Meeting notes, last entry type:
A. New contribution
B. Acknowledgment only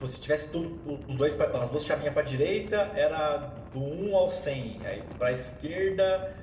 B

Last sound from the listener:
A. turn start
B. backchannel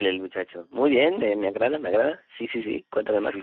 A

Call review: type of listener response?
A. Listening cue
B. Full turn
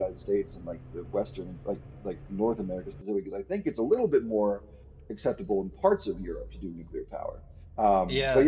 A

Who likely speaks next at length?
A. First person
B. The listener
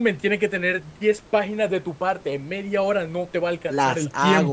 B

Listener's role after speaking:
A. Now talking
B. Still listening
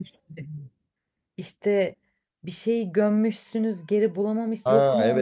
A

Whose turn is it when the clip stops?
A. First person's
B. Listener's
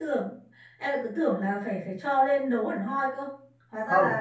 B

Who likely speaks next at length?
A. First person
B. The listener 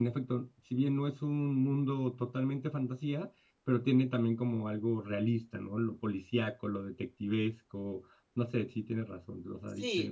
B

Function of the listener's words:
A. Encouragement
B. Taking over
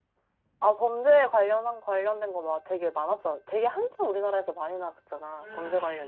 B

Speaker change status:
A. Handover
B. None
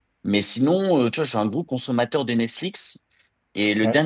B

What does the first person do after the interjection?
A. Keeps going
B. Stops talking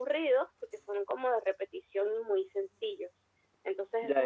B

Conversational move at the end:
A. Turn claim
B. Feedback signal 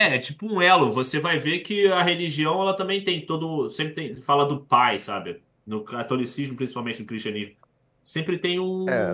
A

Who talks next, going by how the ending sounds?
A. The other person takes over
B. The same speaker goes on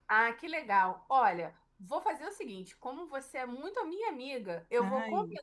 B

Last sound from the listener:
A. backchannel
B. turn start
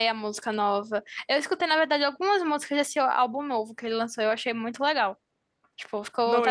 A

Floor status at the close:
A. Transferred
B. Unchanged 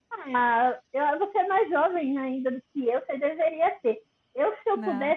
B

